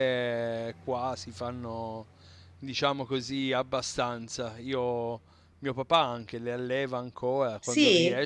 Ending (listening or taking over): listening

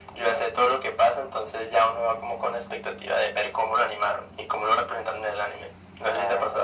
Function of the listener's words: taking over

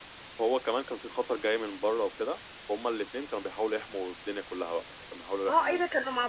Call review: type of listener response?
taking over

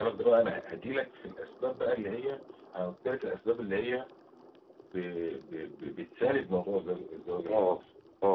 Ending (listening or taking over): listening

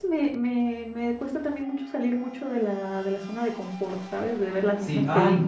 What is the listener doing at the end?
taking over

